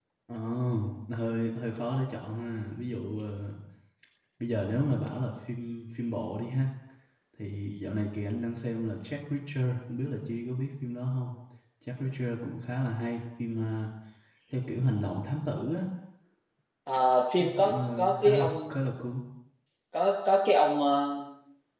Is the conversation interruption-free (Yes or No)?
No